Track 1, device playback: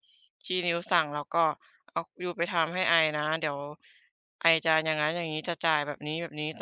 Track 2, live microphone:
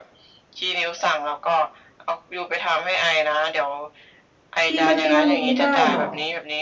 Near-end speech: present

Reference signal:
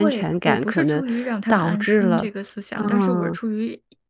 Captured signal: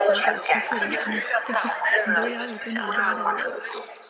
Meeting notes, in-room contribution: present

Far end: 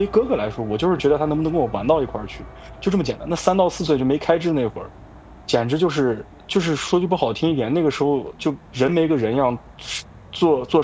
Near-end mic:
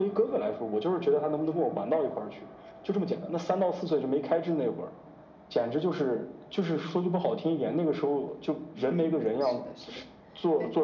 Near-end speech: present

